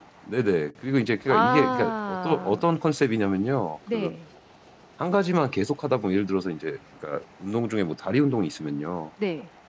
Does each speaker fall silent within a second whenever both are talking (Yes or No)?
No